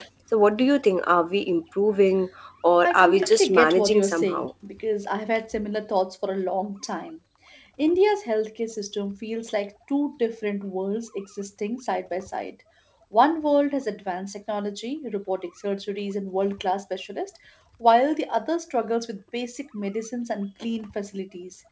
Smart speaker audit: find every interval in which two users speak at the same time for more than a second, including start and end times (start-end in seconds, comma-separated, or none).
2.8-4.5